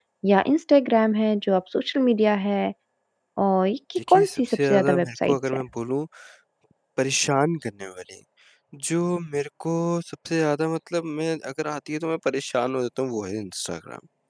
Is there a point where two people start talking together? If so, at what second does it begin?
4 s

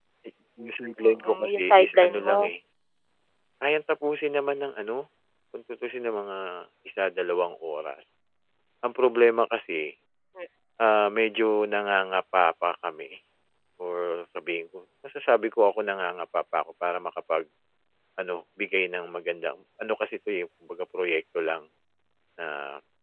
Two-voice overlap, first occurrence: 1 s

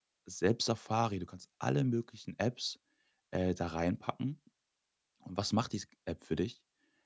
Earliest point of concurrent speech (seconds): none

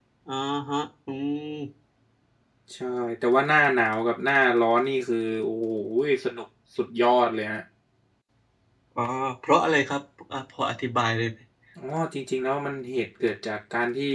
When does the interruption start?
none

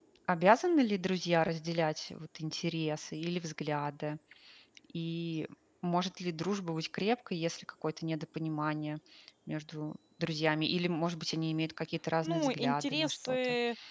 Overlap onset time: 12 s

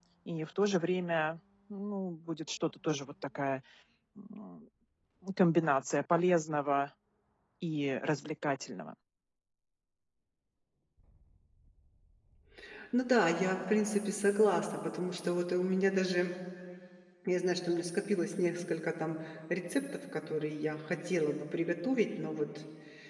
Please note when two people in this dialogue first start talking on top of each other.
none

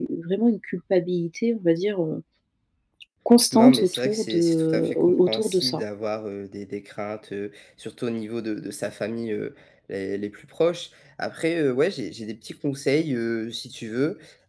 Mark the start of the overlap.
4 s

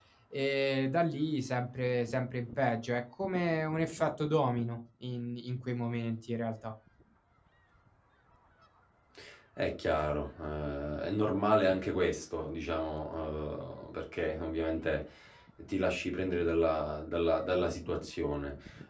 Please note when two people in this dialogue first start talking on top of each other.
none

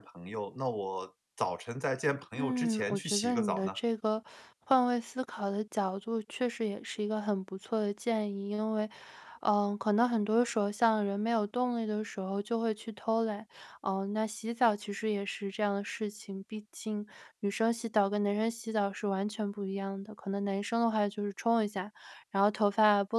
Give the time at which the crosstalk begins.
2 s

